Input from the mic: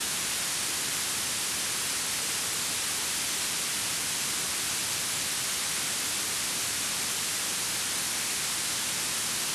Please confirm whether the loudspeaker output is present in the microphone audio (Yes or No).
No